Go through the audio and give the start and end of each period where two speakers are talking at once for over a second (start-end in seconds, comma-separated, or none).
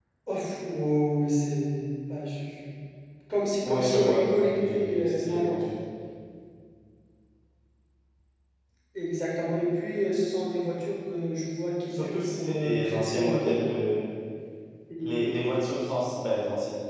3.6-5.6, 11.9-13.6